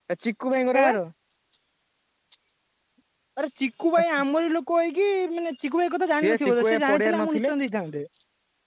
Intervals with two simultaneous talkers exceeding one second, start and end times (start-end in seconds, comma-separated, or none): 6.2-7.5